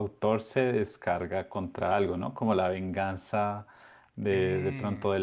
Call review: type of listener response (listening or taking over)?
listening